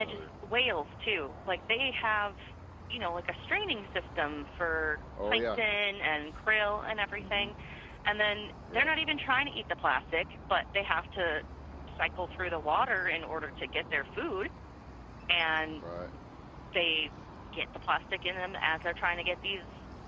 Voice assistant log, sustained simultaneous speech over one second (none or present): none